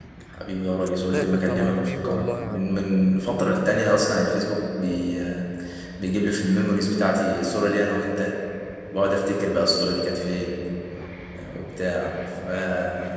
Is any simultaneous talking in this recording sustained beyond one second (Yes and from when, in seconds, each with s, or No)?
Yes, from 1.1 s